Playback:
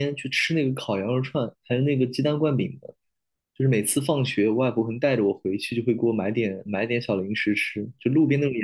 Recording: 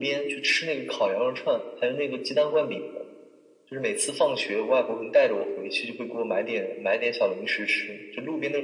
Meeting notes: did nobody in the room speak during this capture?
Yes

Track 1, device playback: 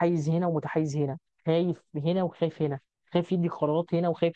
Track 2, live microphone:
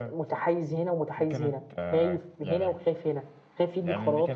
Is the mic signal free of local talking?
No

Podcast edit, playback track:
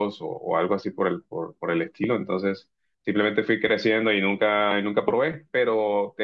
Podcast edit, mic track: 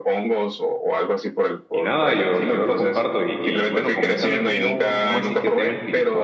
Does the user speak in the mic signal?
Yes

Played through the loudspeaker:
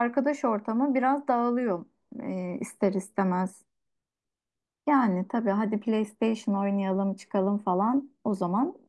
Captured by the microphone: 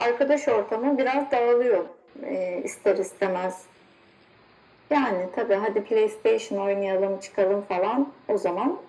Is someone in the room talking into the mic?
No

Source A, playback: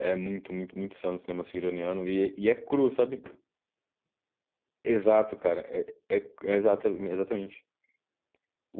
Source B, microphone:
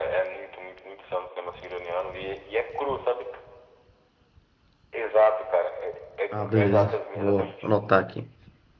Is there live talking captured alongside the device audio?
Yes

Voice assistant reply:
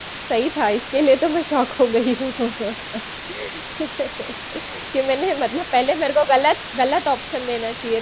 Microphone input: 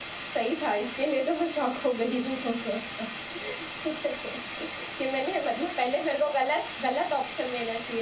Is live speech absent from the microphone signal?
Yes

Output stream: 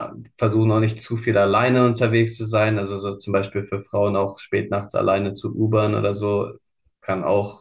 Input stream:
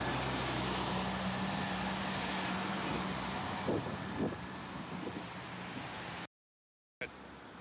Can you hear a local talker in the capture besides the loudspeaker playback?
No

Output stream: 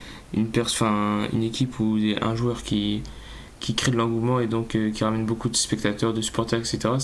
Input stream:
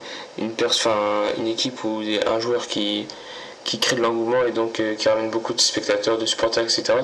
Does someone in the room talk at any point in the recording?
No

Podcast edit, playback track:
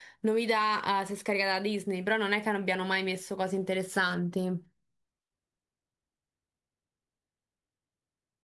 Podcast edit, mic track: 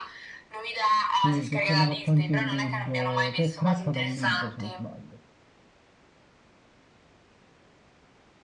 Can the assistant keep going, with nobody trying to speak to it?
No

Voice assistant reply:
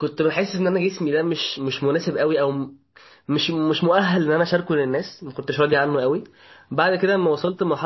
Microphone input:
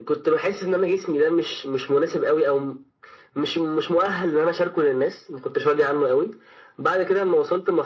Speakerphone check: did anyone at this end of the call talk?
No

